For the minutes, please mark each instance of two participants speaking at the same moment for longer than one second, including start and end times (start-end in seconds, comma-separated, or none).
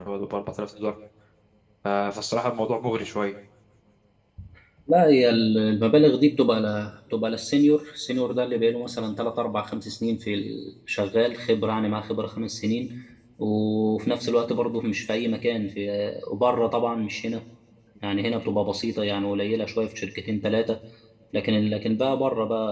none